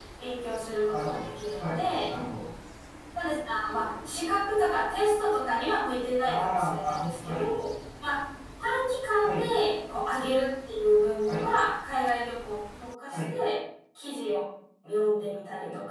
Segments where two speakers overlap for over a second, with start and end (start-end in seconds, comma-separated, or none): 6.2-7.4